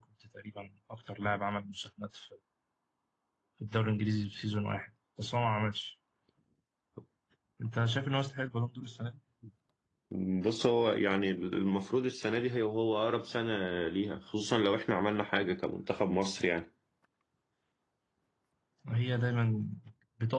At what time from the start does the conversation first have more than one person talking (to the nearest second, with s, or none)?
none